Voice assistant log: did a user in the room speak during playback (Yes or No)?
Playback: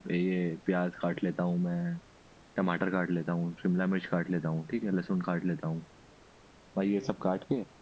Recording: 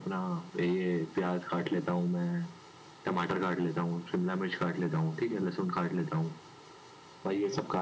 No